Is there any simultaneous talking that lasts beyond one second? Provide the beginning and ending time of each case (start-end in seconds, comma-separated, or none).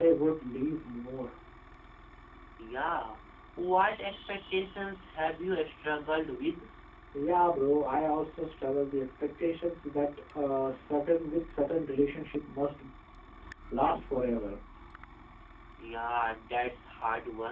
none